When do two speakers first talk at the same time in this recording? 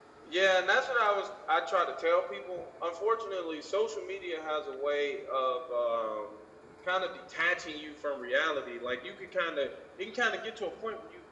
none

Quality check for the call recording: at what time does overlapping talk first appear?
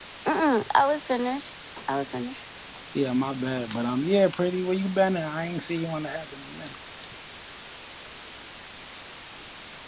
none

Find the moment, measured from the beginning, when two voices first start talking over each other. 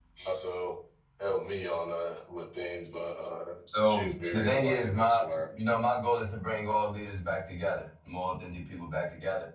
3.7 s

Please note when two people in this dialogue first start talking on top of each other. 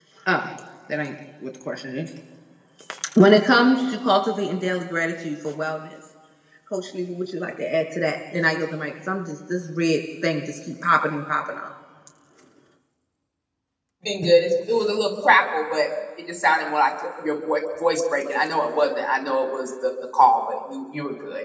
none

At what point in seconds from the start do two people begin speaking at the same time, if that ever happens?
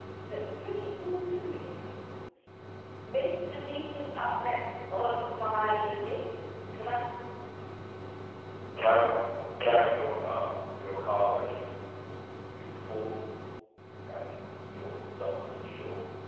none

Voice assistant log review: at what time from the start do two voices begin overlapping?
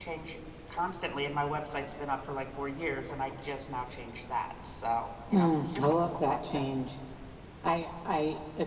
5.3 s

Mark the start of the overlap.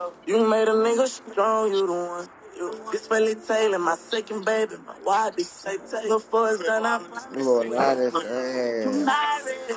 7.3 s

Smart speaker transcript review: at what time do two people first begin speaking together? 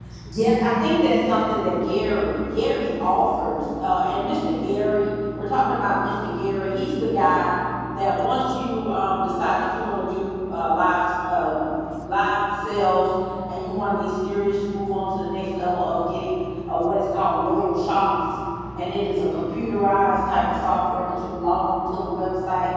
none

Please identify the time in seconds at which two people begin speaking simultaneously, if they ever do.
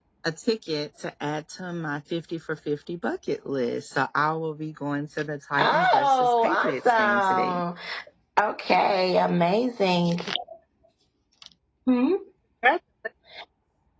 5.6 s

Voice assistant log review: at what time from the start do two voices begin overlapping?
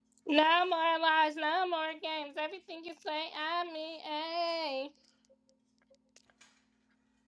none

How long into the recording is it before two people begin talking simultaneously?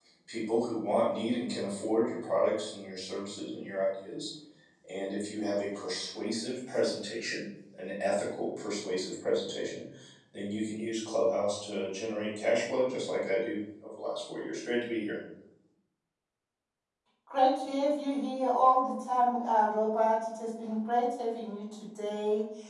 none

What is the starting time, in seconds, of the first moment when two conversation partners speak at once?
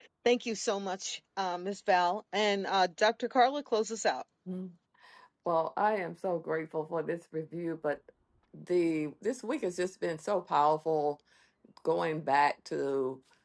none

